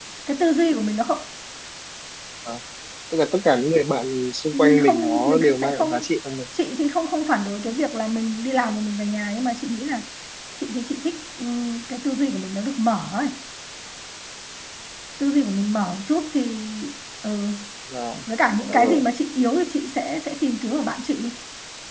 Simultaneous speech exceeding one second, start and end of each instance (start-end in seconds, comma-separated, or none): 4.5-6.1